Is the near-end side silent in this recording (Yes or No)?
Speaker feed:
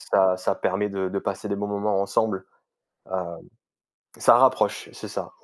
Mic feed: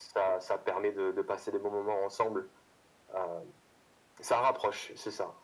Yes